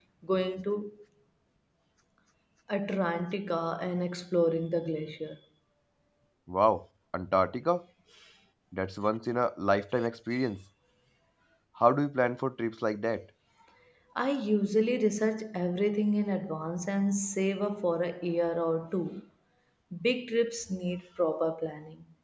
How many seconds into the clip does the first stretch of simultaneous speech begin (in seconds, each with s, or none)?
none